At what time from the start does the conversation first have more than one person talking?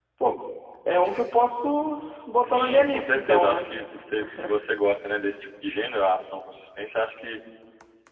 2.5 s

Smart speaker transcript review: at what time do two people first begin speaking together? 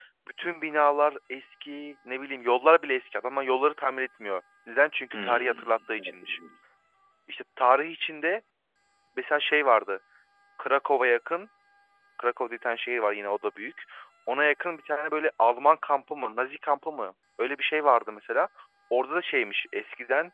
5.1 s

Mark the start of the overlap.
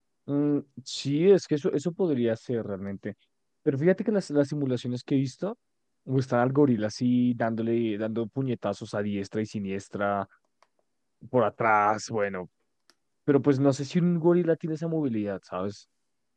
none

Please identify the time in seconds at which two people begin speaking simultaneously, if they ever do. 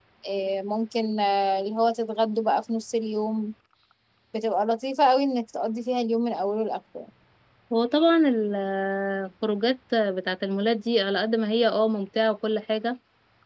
none

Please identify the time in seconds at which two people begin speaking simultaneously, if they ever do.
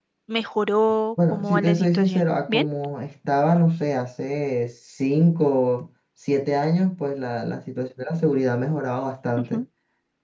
1.3 s

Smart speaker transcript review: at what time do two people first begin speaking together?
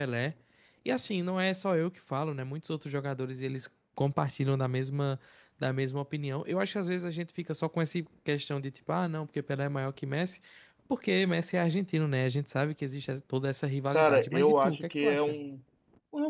13.9 s

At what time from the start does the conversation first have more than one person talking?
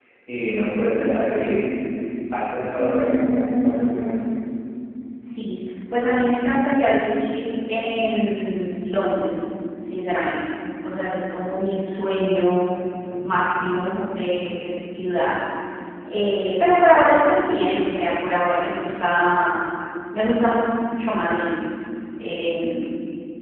2.8 s

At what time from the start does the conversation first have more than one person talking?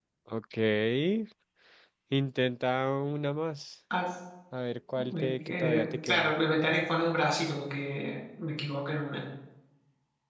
5.0 s

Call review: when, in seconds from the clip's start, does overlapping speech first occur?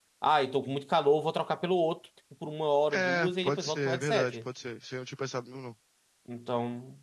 2.9 s

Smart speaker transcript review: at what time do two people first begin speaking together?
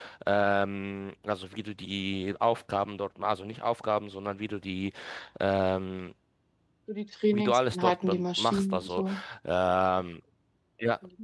7.3 s

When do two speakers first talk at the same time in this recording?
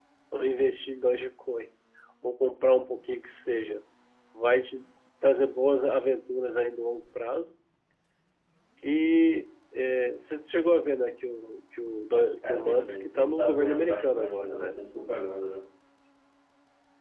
12.4 s

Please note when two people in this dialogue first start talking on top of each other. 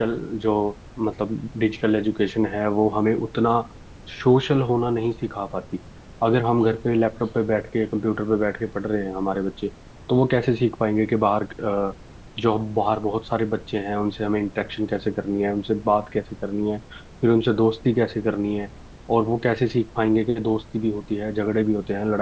none

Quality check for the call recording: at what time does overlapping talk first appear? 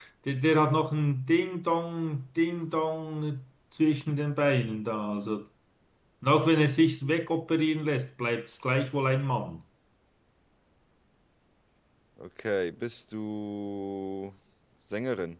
none

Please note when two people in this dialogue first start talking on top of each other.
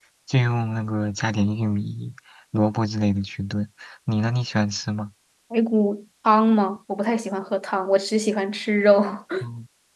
none

